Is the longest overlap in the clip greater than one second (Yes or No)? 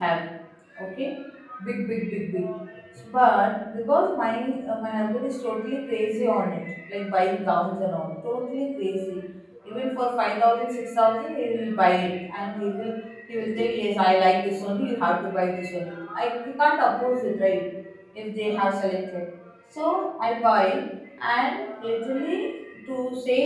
No